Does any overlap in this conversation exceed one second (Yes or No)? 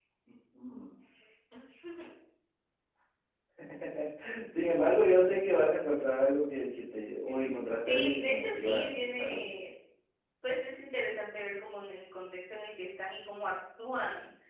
Yes